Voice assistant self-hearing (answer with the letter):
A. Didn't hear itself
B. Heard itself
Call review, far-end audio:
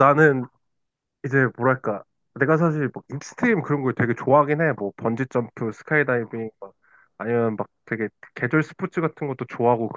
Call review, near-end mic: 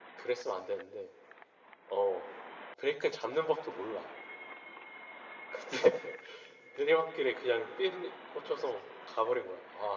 A